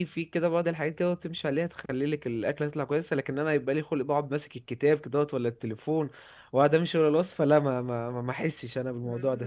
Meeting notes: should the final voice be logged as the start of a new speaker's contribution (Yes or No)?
Yes